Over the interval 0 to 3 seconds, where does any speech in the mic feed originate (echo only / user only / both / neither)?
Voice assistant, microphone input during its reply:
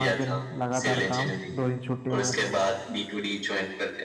both